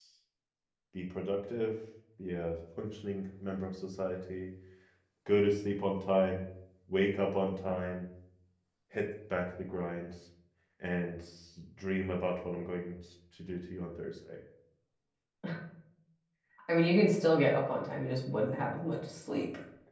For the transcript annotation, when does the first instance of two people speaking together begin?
none

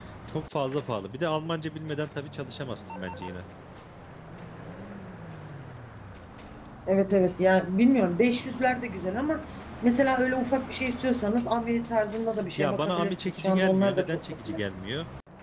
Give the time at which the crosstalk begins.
13 s

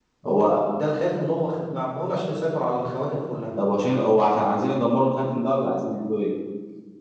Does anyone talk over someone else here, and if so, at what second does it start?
none

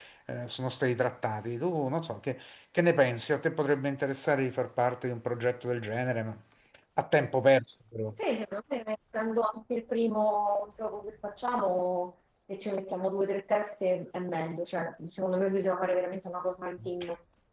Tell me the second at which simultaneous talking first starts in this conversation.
none

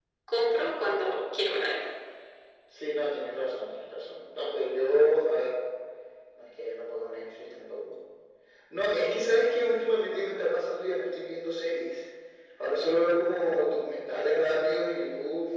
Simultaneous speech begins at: none

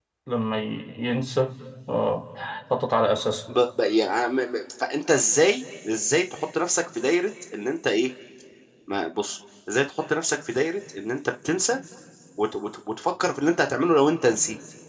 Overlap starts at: none

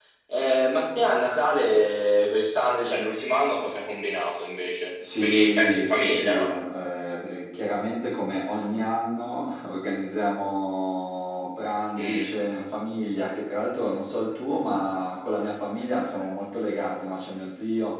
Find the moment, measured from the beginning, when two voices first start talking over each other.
5 s

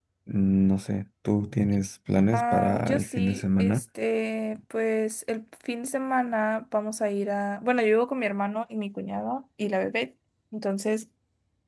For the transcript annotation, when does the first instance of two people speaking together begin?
2 s

